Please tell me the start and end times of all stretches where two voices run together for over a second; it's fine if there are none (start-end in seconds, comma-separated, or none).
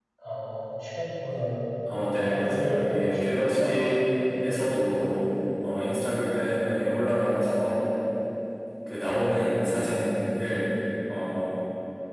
2.2-3.8